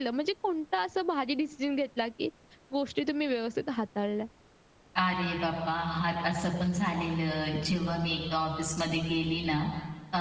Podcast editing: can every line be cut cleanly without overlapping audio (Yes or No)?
Yes